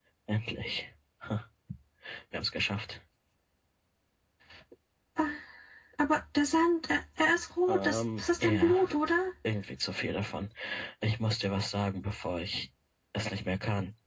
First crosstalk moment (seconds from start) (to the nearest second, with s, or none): 8 s